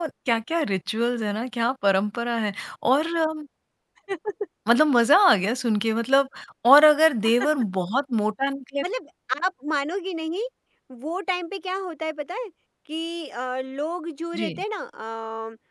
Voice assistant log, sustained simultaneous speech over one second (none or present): none